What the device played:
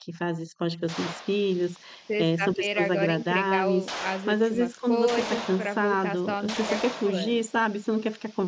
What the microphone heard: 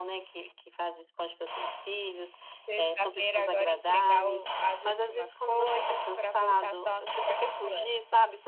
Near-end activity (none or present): none